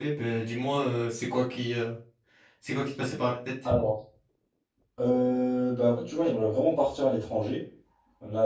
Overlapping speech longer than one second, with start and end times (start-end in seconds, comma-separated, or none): none